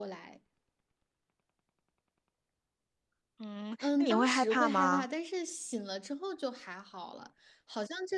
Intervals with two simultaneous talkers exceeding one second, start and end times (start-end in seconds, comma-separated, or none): 3.8-5.0